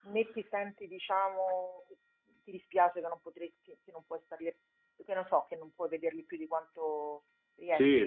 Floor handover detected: Yes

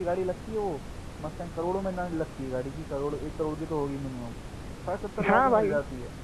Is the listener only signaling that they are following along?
No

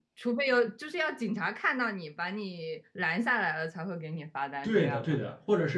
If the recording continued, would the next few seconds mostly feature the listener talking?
Yes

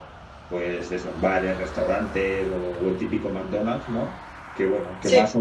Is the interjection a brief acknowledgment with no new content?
Yes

